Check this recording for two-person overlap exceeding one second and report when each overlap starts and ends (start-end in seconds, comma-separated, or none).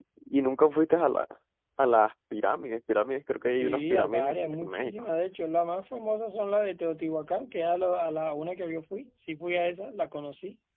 3.5-5.1